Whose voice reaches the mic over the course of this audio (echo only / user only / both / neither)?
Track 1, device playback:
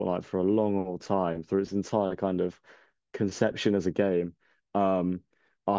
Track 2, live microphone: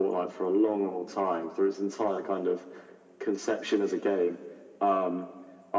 echo only